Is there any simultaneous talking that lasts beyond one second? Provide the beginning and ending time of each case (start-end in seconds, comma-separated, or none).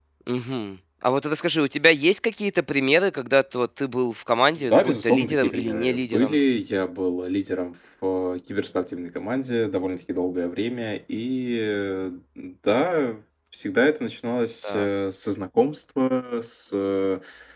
4.6-6.4